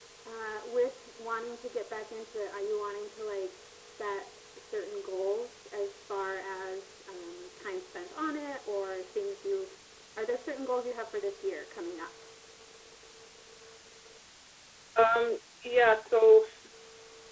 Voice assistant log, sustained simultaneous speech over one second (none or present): none